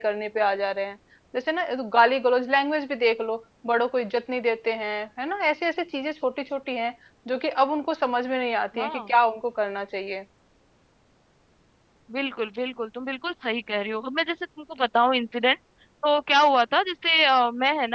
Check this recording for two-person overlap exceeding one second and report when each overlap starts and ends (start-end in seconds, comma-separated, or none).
none